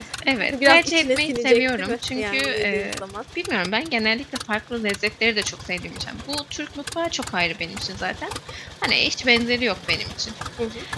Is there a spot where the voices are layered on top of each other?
Yes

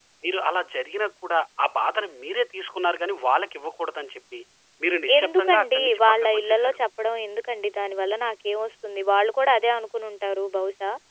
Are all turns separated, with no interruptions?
No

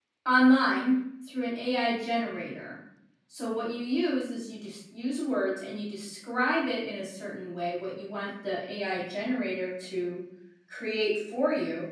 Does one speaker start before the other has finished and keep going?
No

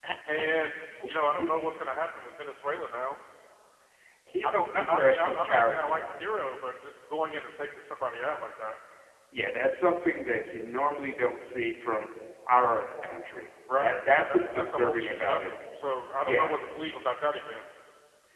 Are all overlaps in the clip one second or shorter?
No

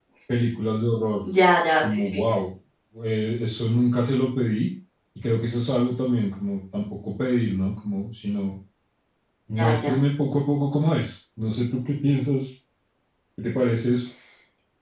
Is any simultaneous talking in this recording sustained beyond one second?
No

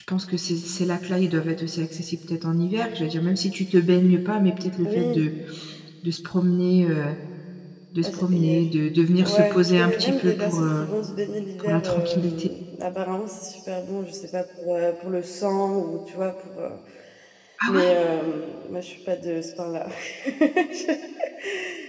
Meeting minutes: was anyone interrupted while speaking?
Yes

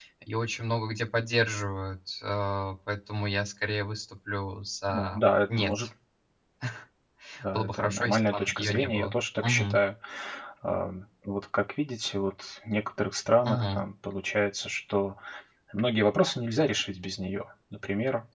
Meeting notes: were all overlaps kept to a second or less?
No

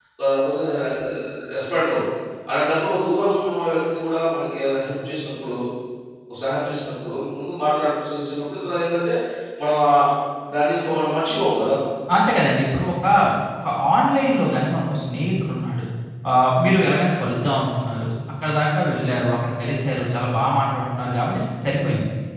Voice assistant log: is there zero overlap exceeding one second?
Yes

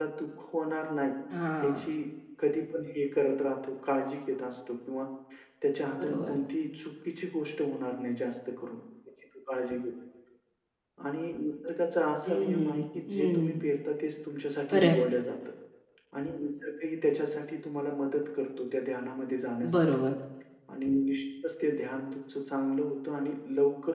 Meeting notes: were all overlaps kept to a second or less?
No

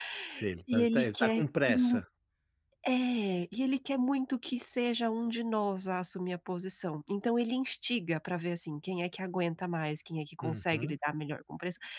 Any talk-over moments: Yes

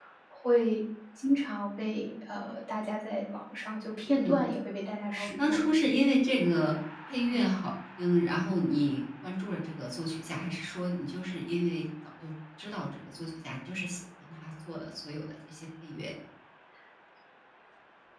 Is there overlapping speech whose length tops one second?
No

